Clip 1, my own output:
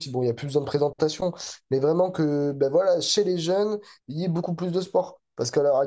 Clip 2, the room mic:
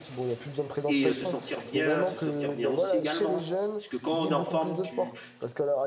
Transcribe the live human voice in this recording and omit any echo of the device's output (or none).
et euh, se sentir bien, se sentir bien aussi également. Parce que quand on est en forme, tu,